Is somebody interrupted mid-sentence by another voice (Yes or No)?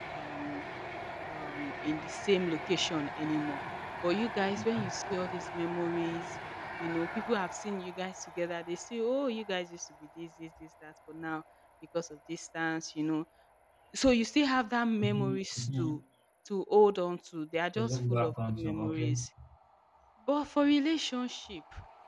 Yes